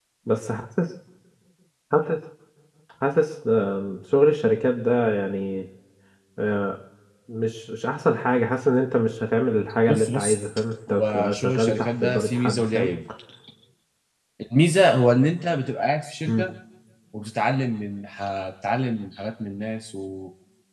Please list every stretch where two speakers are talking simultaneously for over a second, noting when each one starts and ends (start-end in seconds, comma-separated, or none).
10.9-12.9